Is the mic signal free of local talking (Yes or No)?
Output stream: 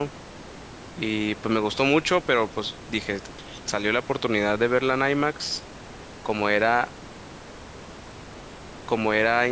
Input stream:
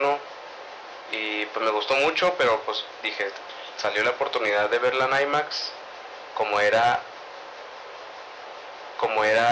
Yes